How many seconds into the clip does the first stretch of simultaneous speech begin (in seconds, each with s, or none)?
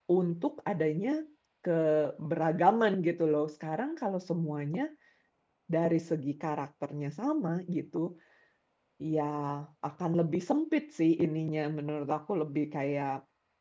none